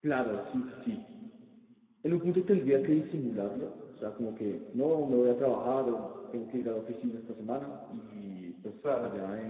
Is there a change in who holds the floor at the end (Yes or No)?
No